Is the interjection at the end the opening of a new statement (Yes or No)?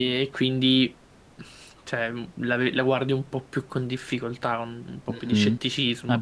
Yes